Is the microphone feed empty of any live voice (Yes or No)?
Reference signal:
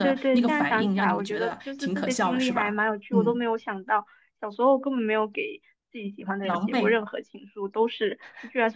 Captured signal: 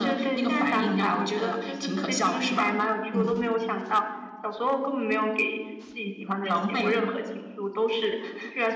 Yes